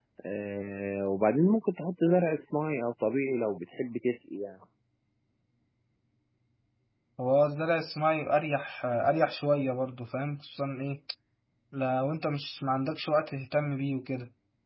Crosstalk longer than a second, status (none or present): none